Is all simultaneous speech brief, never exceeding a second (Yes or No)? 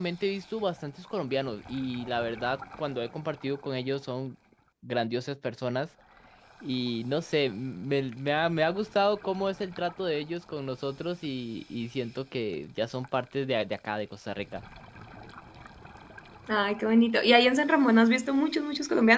Yes